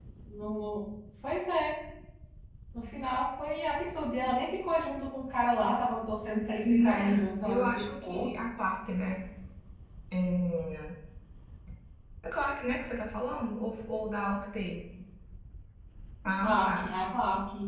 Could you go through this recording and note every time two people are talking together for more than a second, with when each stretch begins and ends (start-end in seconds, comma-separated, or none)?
6.7-8.2